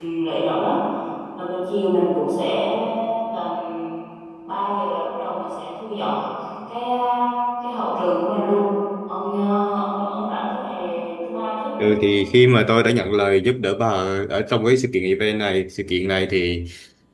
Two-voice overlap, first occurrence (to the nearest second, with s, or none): none